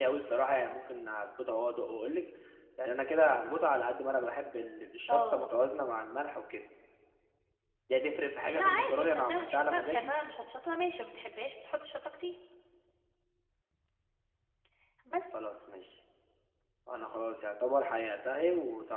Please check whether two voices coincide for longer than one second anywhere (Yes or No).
Yes